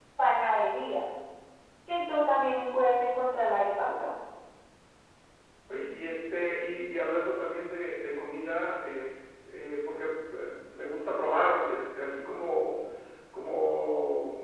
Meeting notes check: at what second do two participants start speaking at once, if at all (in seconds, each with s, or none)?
none